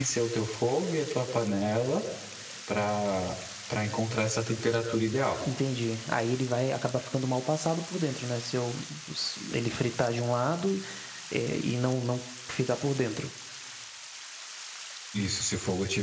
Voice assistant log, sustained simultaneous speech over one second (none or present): none